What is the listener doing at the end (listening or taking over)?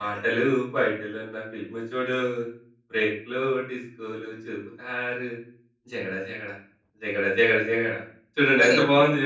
taking over